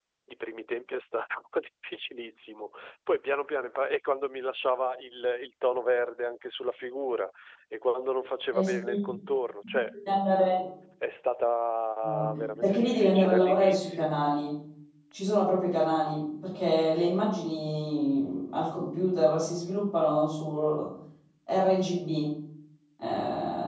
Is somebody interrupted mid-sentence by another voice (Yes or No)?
Yes